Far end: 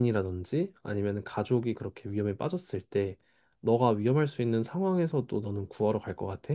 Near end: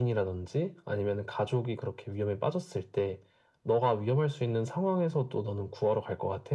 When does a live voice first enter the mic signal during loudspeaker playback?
none

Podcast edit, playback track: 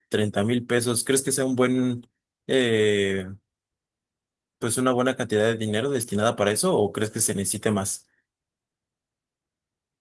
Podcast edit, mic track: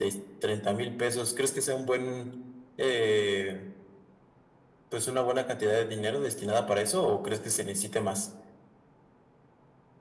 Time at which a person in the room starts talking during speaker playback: none

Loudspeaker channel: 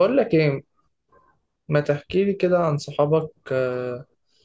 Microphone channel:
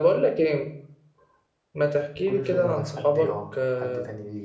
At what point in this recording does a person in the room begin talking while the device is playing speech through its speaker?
2 s

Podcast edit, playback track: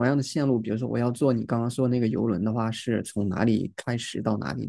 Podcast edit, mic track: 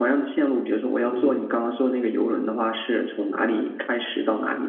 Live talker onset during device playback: 1 s

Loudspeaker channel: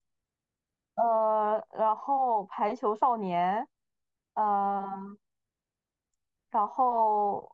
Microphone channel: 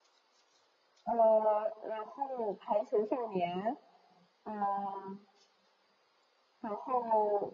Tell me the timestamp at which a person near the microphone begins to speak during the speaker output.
none

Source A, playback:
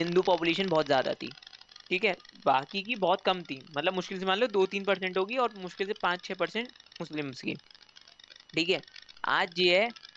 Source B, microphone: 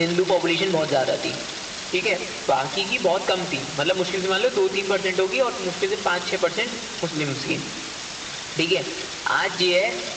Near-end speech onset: none

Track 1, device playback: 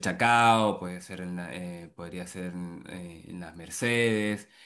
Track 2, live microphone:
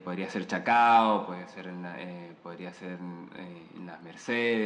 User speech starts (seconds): none

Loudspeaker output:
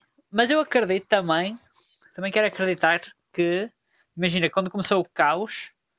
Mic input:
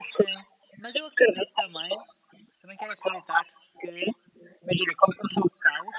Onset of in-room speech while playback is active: none

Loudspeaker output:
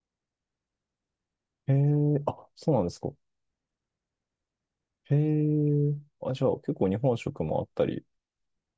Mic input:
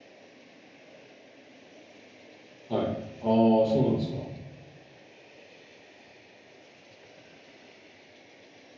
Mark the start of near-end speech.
3 s

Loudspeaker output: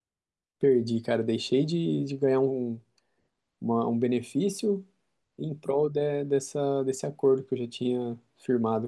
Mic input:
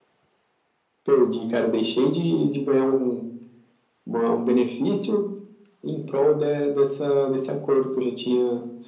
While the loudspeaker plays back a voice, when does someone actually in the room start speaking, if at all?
none

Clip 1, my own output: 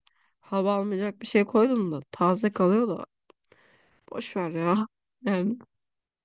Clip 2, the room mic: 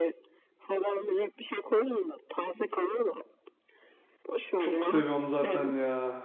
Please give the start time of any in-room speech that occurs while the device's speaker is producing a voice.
5 s

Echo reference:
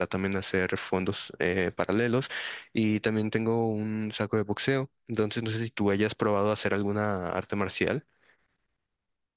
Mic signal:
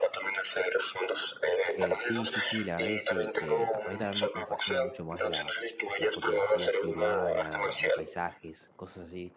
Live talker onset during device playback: 2 s

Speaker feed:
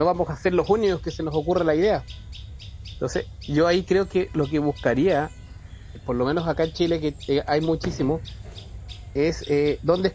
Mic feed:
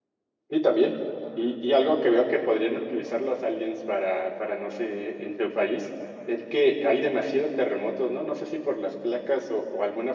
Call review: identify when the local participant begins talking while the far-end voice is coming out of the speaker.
0 s

